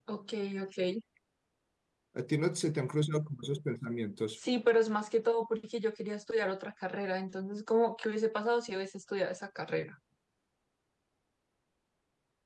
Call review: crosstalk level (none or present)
none